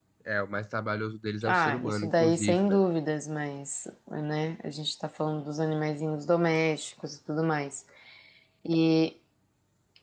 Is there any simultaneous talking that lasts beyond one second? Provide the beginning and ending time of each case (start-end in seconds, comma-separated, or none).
1.5-2.8